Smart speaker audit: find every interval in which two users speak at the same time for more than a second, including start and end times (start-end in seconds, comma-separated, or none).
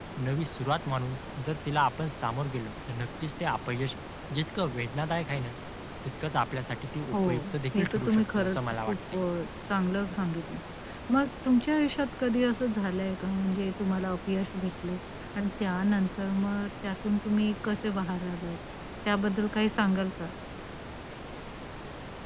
7.8-9.2